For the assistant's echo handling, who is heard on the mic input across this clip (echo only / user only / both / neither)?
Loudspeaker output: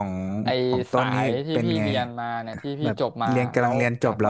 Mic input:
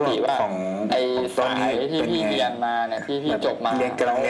echo only